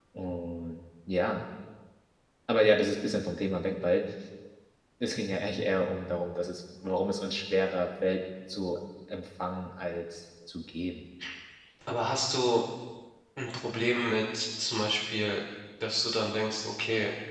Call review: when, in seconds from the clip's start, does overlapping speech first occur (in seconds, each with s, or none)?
none